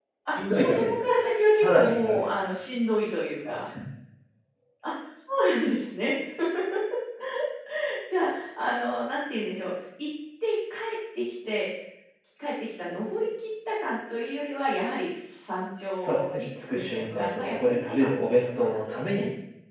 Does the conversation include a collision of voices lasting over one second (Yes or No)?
Yes